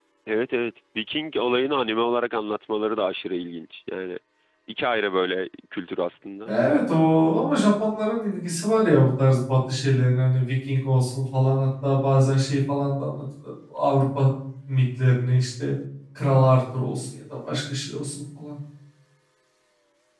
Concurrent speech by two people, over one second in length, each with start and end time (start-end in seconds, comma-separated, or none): none